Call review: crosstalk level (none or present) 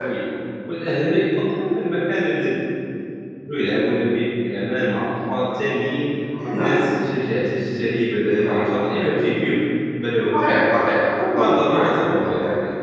present